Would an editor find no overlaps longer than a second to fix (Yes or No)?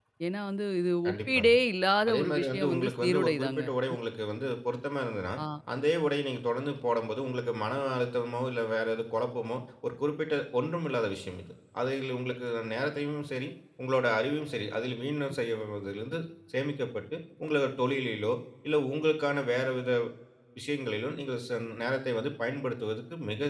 No